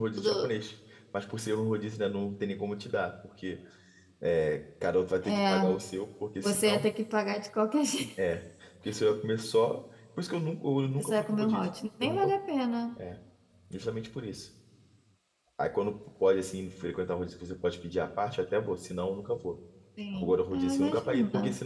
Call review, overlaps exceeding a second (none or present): present